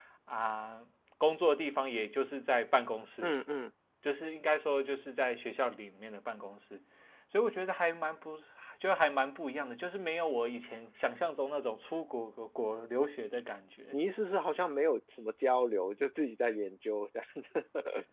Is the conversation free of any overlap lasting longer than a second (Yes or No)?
Yes